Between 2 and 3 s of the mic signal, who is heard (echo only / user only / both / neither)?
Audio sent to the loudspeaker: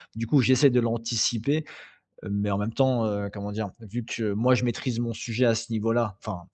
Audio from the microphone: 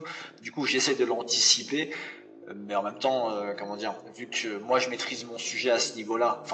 echo only